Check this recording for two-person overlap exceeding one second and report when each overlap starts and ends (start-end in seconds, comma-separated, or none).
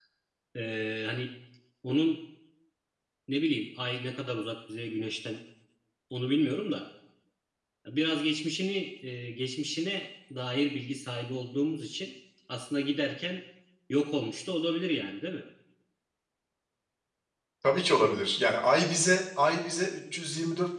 none